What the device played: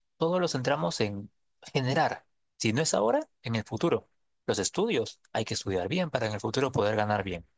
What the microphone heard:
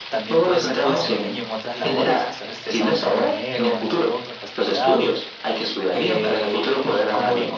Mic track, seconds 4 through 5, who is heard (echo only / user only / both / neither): both